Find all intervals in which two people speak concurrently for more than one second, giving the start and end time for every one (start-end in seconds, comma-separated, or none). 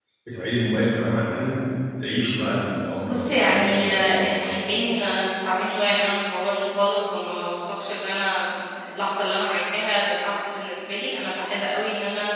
3.0-4.6